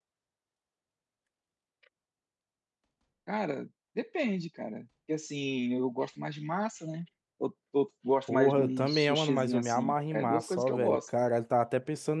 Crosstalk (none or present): present